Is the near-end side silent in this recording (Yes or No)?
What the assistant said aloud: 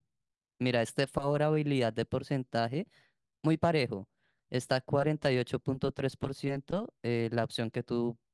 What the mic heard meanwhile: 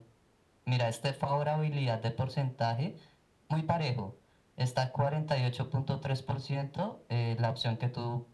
Yes